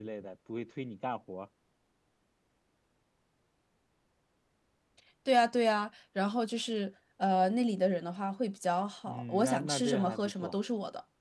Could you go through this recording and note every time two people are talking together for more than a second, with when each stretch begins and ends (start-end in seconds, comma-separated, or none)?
9.1-10.6